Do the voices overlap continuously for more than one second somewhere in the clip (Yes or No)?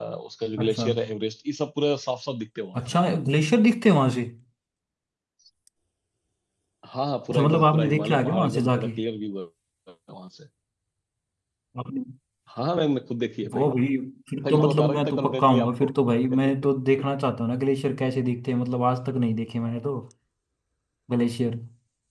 Yes